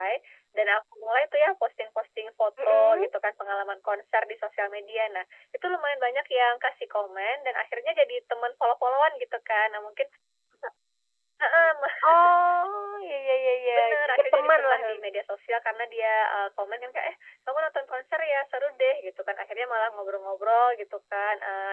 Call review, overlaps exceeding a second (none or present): present